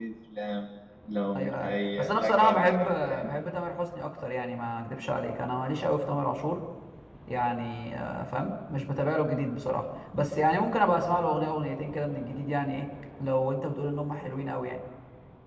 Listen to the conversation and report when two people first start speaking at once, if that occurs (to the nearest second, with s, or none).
1 s